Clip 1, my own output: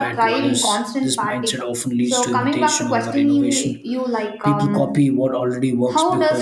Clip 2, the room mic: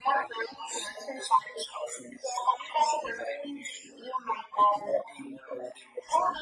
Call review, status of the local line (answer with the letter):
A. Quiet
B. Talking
A